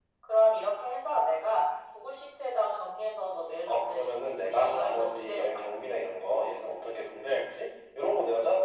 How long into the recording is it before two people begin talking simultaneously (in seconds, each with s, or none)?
3.7 s